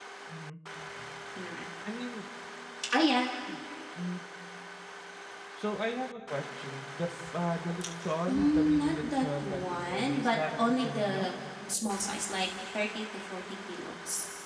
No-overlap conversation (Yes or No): No